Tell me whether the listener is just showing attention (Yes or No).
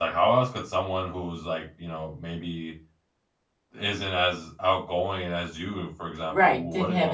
No